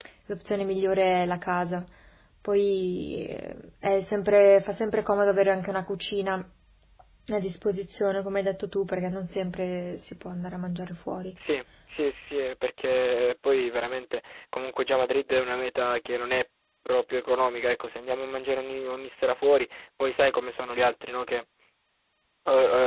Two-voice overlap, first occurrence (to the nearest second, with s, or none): none